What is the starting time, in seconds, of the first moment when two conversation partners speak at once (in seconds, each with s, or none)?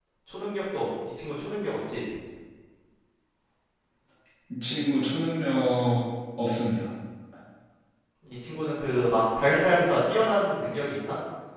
none